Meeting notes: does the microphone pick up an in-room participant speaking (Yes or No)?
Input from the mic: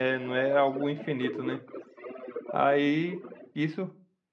Yes